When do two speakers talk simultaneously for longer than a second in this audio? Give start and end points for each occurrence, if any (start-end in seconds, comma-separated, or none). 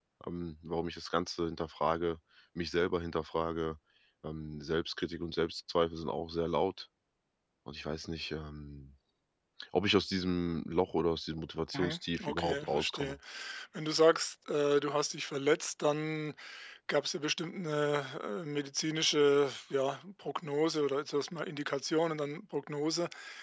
11.7-13.2